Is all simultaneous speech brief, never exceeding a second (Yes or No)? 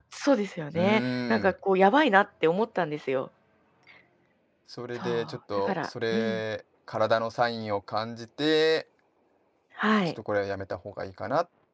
No